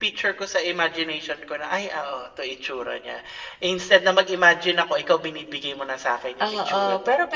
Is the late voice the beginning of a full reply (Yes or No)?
Yes